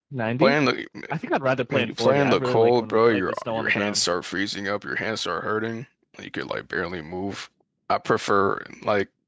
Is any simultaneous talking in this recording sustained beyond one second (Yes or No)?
Yes